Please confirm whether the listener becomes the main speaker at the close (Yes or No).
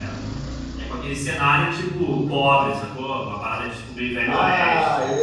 Yes